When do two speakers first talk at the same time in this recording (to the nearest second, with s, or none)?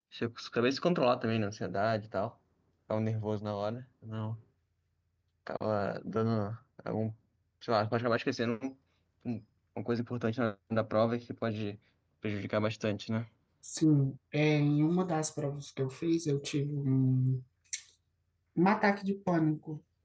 none